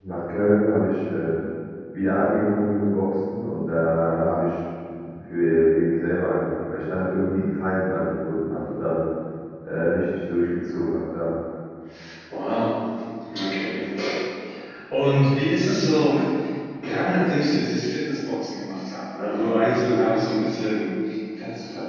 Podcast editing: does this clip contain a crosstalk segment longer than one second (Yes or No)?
No